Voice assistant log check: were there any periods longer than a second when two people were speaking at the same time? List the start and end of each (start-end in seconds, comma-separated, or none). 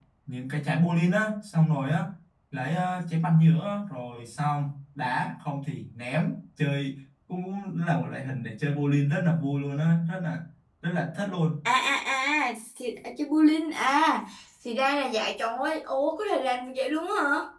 none